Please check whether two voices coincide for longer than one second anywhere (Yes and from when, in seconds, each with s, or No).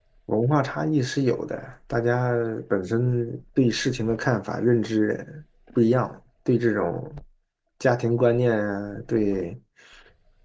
No